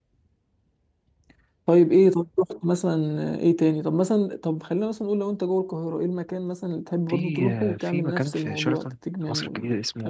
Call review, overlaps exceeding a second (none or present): present